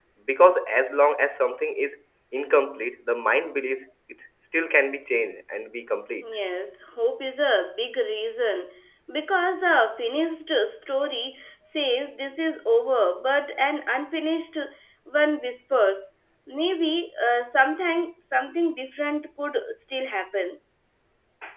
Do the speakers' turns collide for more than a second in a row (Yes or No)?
No